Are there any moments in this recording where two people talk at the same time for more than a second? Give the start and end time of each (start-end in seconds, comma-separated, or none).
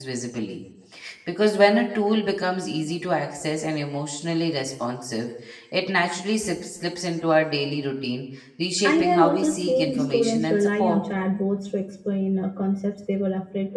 8.8-11.0